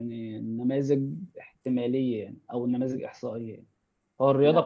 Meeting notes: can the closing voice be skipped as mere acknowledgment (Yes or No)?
Yes